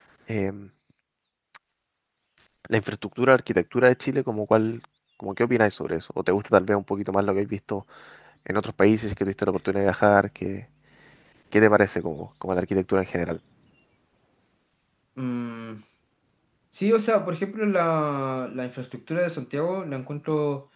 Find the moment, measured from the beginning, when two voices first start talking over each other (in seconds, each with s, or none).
none